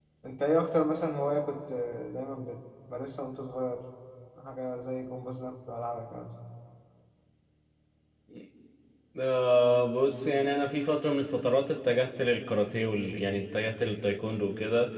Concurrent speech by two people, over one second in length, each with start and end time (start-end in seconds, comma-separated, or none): none